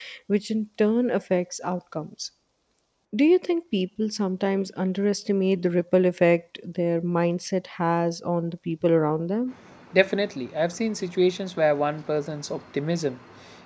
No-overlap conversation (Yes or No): Yes